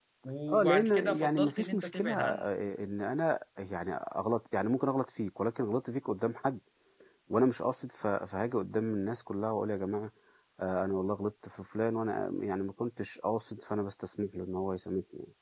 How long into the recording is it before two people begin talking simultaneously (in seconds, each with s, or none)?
0.5 s